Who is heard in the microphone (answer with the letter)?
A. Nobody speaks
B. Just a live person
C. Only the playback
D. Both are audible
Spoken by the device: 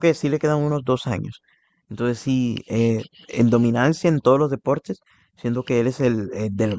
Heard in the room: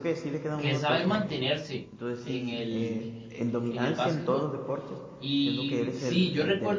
D